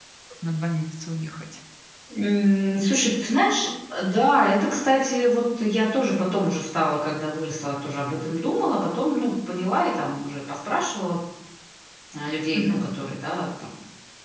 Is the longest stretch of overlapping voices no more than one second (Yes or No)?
Yes